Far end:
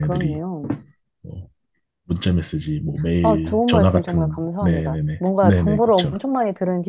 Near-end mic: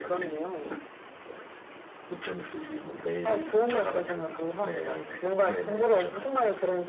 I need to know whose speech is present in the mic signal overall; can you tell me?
echo only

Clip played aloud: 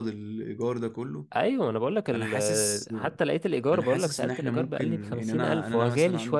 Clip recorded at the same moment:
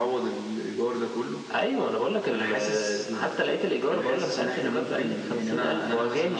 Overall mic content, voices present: echo only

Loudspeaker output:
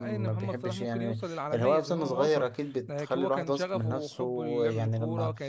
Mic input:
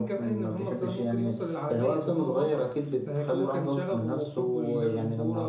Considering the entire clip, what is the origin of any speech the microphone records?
echo only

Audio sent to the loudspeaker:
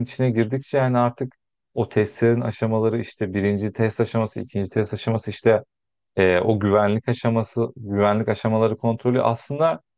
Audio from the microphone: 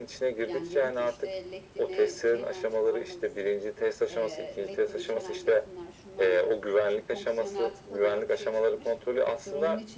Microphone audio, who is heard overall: both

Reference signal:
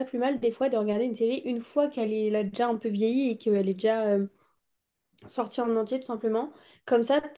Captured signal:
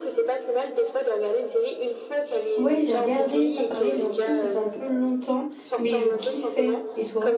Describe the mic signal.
both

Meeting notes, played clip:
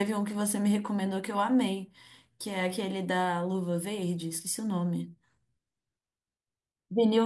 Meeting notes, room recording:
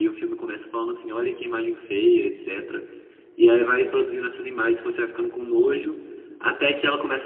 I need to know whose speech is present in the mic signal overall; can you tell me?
user only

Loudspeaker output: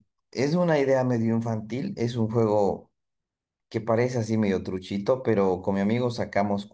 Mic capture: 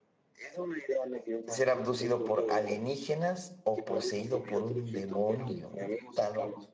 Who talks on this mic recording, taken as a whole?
both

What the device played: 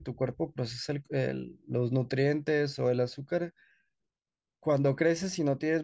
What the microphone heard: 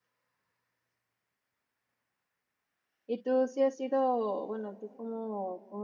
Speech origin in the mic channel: user only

